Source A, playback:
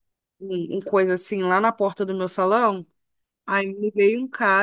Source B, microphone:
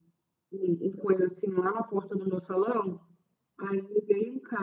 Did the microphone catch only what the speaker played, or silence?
Yes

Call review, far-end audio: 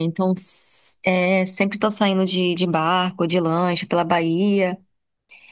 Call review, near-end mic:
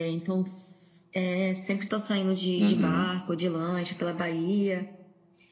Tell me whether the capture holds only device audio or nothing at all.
No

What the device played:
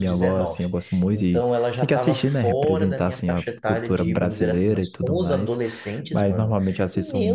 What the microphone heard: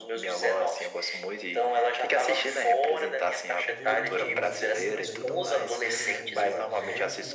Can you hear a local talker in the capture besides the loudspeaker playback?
Yes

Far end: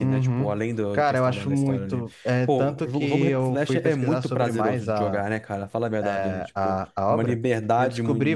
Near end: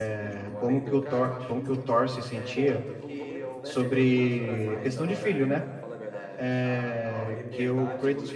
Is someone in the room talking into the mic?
Yes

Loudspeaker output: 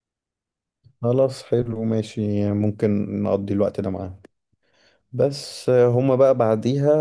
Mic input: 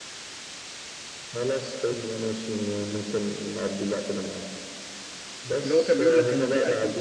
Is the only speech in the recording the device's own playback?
No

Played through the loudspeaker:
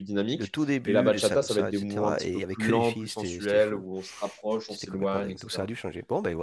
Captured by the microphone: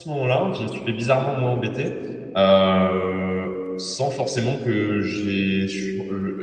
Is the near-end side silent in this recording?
No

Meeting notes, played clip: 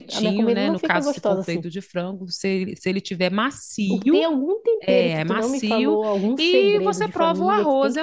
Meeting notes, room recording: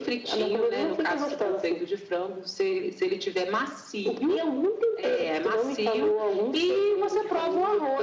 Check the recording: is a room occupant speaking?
No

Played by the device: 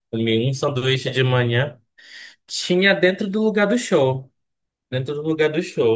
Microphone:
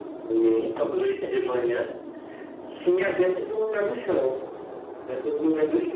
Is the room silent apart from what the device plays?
Yes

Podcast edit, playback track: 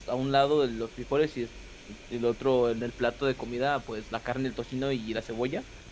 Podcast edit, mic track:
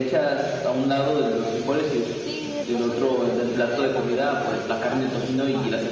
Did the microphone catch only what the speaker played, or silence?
No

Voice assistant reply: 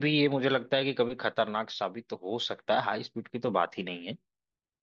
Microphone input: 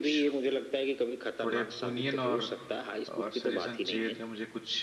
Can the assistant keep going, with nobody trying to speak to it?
No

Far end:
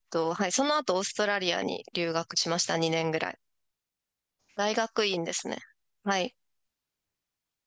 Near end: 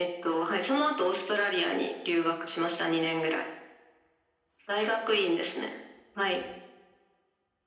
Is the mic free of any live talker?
Yes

